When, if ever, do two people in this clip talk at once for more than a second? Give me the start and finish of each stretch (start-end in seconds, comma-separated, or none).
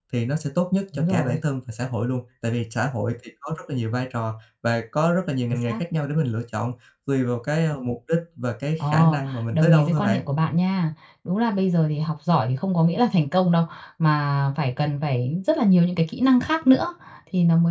8.8-10.2